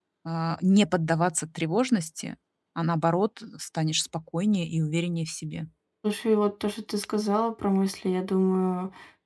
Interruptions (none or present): none